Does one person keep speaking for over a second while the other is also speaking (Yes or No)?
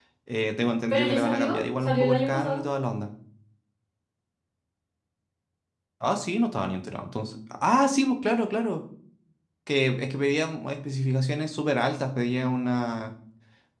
Yes